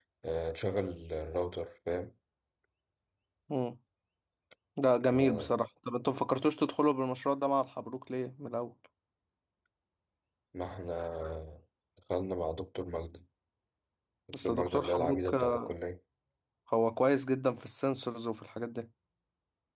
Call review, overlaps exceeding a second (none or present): present